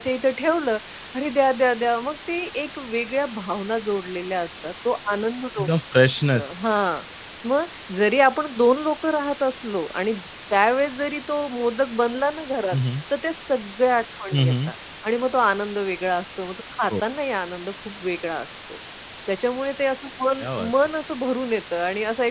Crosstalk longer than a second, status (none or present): none